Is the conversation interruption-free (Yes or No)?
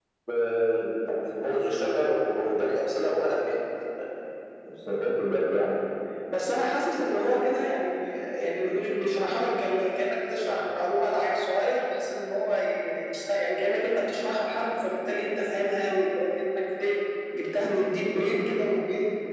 Yes